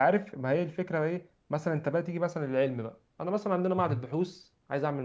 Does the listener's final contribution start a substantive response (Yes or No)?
No